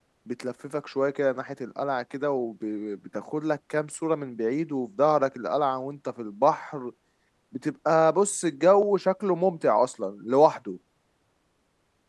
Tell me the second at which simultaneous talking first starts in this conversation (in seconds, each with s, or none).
none